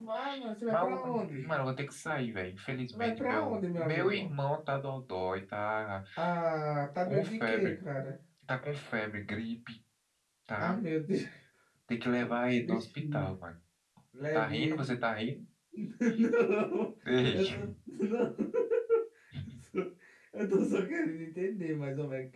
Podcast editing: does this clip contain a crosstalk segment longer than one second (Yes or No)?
Yes